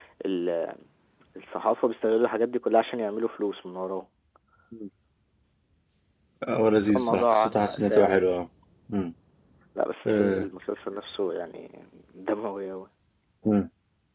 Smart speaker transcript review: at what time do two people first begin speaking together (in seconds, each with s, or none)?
6.8 s